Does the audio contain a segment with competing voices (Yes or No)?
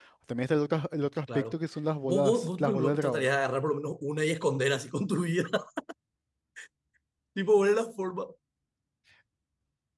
Yes